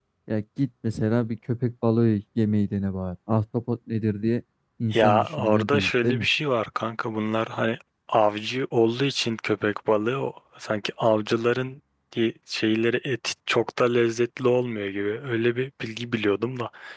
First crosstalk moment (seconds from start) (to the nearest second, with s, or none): 5 s